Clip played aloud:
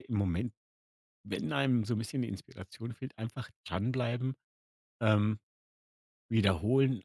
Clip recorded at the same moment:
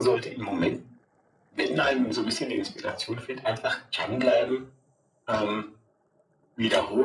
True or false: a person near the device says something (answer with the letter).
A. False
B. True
A